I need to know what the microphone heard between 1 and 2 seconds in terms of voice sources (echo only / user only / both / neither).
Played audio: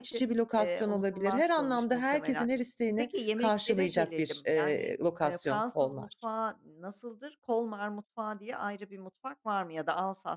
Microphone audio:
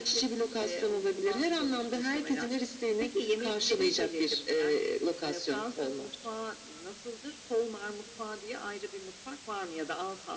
echo only